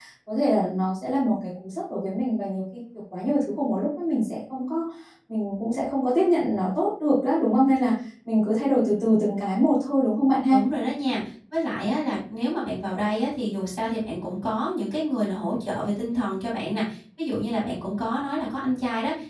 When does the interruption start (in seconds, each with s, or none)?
none